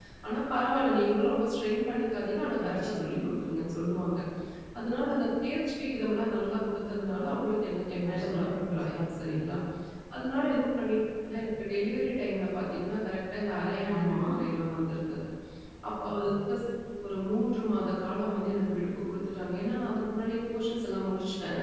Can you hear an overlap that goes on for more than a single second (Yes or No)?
Yes